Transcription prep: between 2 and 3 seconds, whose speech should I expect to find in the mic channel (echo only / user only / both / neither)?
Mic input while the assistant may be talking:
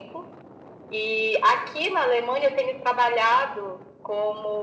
echo only